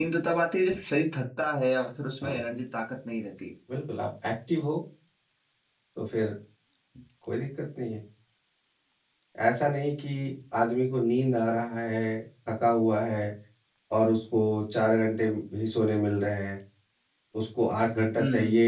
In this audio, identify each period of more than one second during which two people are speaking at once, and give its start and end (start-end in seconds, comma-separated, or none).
none